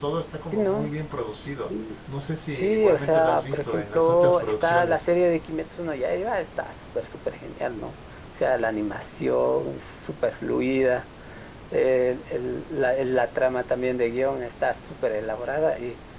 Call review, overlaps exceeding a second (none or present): present